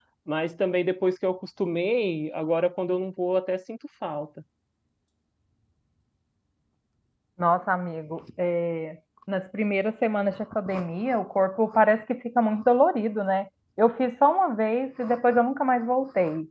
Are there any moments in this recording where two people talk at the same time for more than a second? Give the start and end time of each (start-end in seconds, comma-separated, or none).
none